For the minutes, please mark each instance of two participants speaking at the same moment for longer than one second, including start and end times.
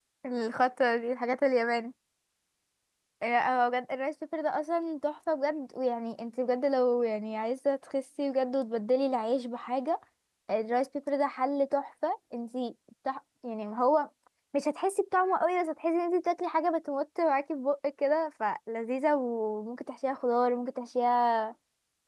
none

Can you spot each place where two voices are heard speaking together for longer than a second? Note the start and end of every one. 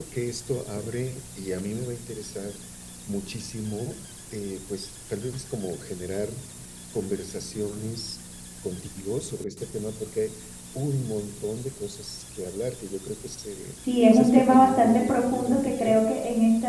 14.1-16.0

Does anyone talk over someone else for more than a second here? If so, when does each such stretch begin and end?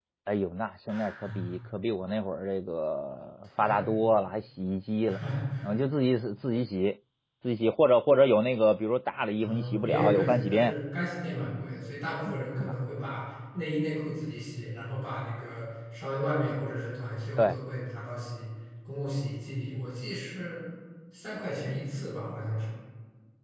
9.4-10.7

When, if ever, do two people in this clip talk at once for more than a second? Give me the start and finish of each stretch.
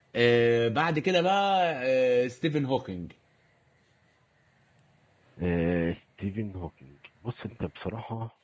none

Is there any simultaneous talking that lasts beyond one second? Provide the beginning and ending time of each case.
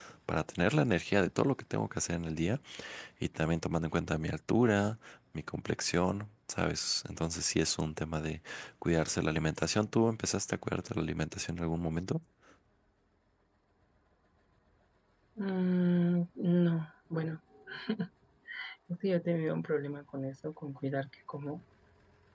none

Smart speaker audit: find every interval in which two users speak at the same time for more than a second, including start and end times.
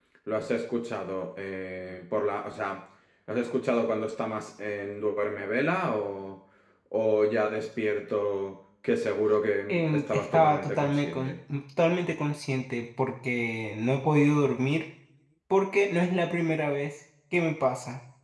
9.7-11.2

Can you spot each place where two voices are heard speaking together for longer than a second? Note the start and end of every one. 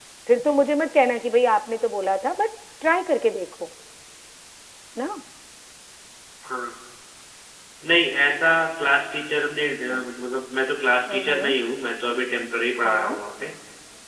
none

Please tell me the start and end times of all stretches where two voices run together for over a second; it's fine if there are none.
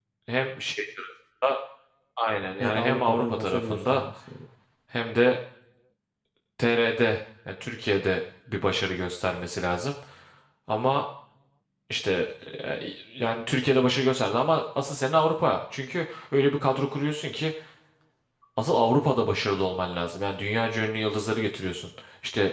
2.6-4.0

